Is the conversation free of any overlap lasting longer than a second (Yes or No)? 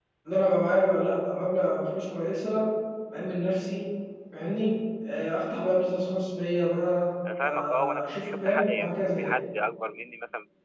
No